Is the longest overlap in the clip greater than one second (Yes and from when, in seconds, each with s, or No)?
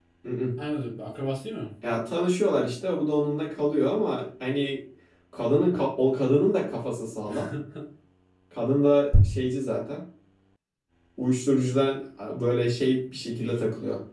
No